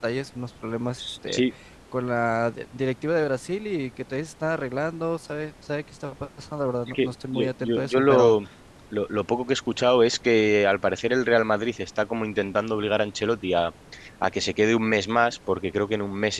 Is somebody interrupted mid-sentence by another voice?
Yes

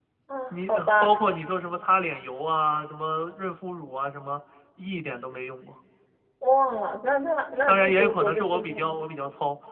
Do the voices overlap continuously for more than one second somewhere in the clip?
Yes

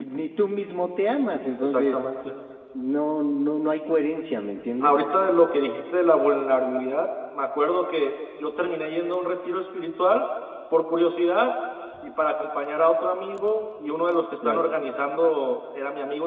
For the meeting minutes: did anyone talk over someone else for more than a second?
No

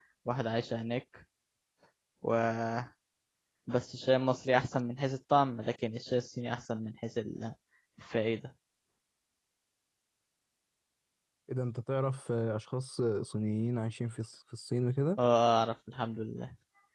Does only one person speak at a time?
Yes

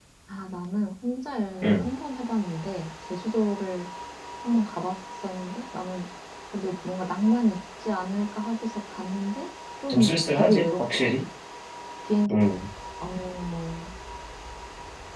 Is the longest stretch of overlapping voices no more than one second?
No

